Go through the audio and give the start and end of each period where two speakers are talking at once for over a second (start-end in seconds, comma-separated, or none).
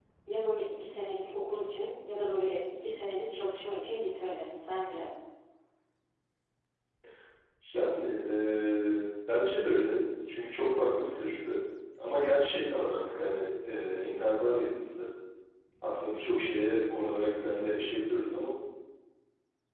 none